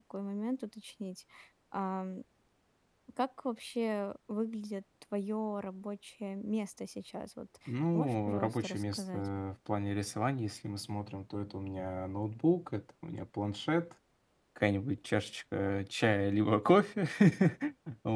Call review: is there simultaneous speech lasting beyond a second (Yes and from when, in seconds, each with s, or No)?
Yes, from 7.9 s